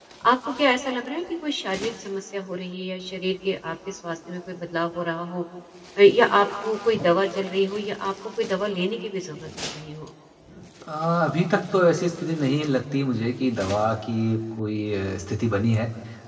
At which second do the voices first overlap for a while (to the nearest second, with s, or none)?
none